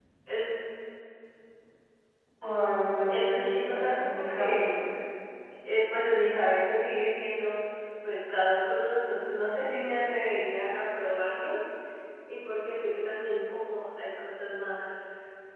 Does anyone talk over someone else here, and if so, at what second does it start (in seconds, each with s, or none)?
3.1 s